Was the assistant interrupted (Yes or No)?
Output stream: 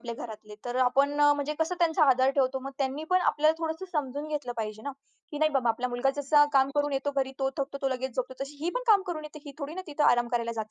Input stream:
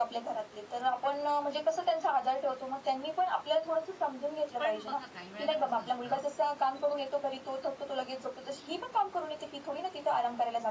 Yes